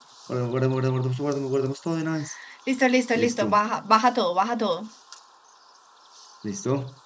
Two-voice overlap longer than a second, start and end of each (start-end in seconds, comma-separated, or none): none